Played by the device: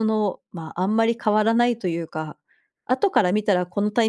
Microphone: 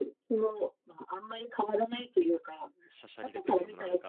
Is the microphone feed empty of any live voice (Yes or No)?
No